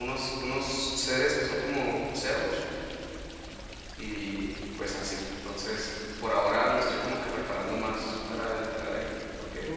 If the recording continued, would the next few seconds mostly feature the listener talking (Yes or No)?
Yes